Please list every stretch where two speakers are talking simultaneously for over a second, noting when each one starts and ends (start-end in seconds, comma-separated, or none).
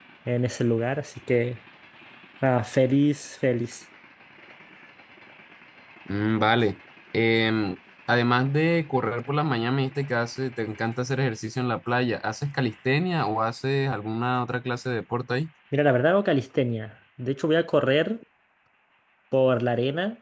none